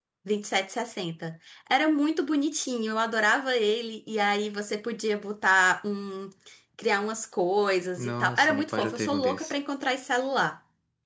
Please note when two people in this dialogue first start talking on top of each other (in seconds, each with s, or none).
8.0 s